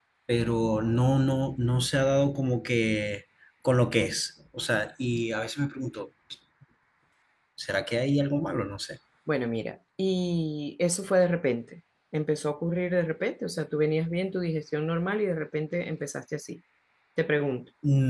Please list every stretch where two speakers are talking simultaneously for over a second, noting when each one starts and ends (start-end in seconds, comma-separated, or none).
none